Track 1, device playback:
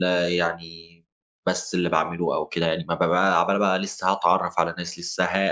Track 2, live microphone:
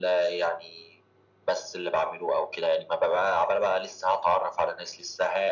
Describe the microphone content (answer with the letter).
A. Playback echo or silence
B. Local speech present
A